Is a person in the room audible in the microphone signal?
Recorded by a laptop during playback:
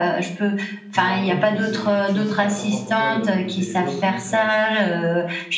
Yes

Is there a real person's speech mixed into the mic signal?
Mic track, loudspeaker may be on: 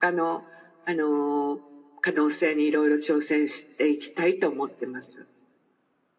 No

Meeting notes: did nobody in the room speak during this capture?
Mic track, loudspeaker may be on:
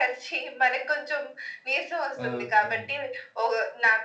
No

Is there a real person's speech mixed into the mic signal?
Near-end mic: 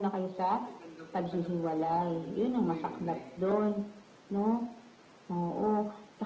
Yes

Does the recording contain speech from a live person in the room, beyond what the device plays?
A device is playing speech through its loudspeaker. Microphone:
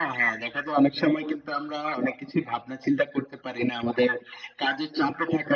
No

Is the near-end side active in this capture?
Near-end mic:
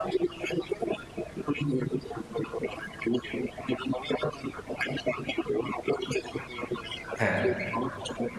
Yes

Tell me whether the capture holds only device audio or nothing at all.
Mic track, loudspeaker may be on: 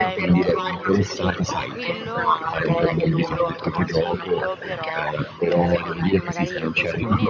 No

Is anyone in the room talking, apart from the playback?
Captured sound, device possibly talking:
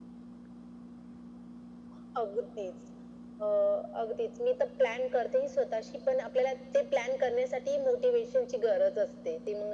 No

